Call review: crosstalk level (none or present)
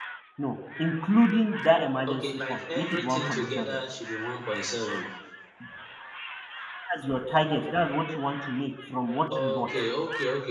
present